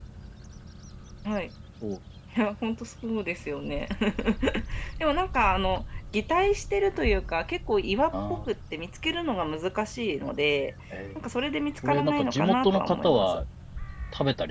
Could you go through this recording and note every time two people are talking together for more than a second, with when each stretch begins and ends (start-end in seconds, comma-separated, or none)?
11.8-13.3